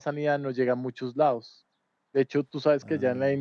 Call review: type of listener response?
listening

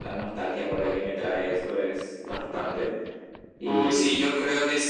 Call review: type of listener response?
taking over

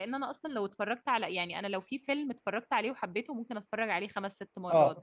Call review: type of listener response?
taking over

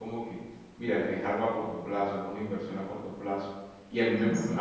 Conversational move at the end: listening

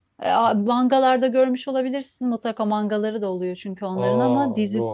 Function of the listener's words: listening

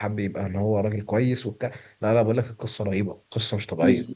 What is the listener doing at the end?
taking over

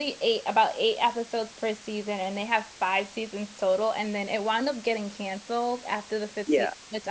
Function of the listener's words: listening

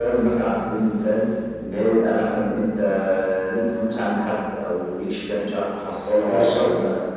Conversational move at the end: listening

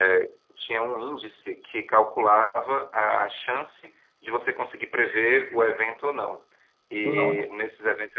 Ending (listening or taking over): listening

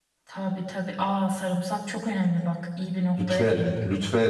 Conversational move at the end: taking over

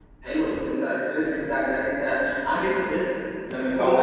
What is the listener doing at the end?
taking over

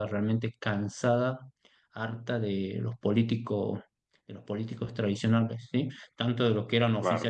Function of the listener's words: listening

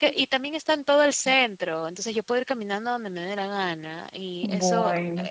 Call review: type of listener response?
listening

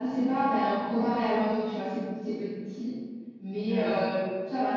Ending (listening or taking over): listening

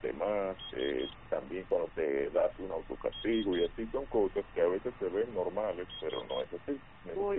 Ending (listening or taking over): listening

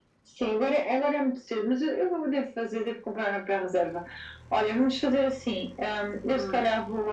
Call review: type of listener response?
listening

